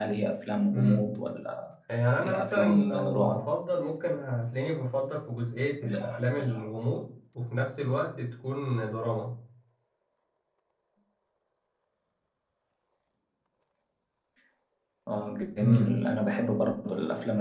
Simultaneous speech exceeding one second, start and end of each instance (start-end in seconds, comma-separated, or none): 2.2-3.5